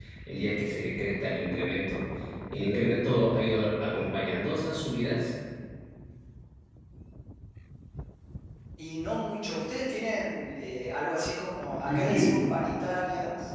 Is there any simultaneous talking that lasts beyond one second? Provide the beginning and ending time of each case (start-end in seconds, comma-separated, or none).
none